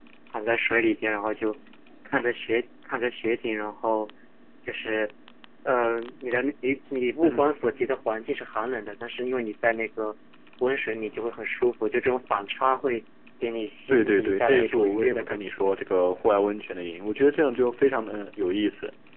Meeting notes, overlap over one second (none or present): present